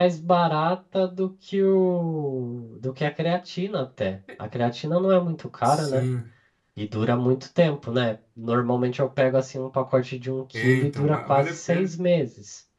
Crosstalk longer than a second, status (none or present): present